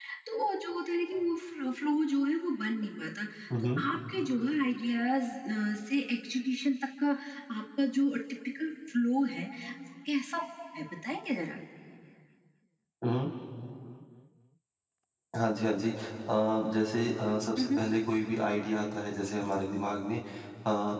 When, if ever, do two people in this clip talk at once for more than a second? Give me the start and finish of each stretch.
none

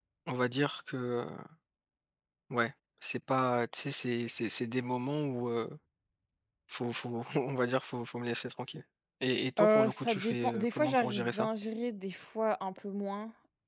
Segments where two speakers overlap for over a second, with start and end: 9.6-11.5

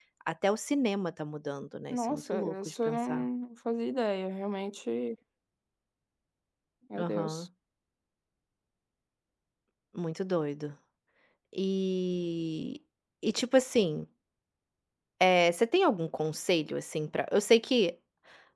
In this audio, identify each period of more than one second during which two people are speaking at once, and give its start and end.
1.9-3.3

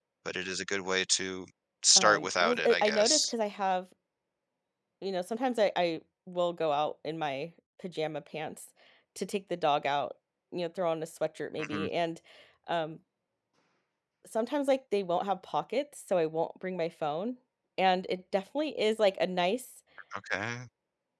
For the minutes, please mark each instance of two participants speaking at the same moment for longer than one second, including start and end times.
2.0-3.3

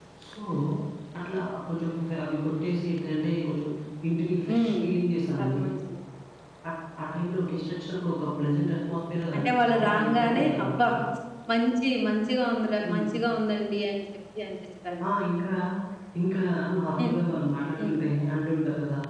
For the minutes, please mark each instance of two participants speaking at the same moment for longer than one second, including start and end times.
9.4-10.9

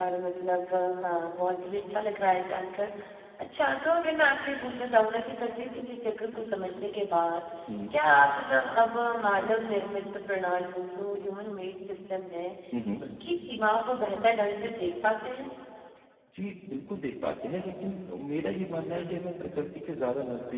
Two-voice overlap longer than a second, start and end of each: none

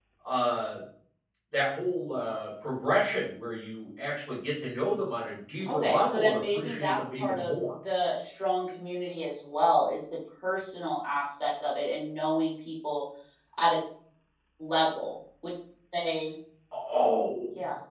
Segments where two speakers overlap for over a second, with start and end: 5.7-7.5

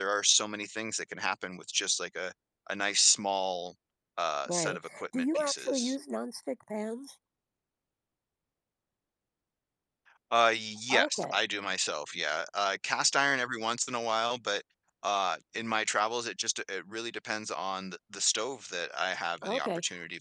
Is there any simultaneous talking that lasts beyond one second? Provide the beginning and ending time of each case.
4.5-6.0

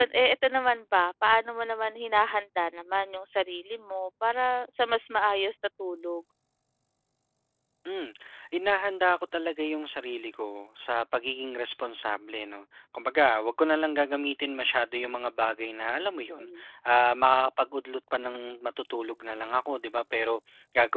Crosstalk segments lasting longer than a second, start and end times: none

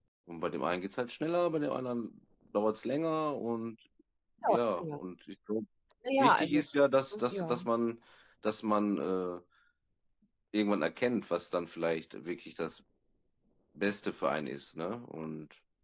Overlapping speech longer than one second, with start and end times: none

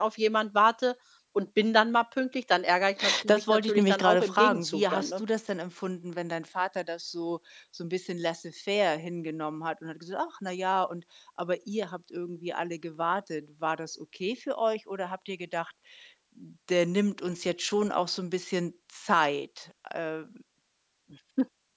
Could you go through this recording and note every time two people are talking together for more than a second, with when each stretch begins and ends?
3.3-5.2

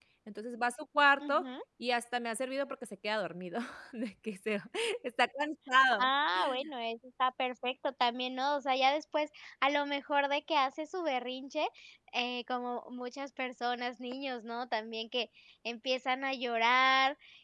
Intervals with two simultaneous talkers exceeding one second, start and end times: none

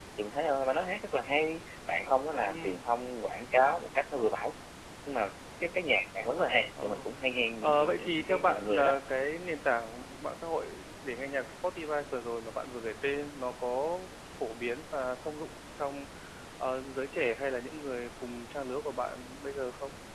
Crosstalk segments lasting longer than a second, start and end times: 7.6-9.0

